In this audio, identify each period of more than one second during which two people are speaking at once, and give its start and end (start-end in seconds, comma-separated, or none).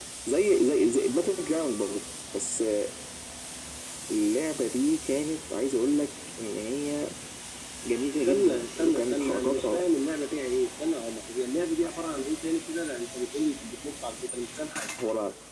8.2-9.8